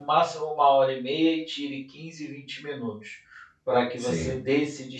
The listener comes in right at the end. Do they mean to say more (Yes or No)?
No